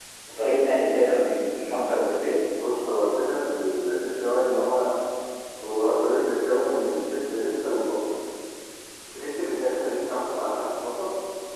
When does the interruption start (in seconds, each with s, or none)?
none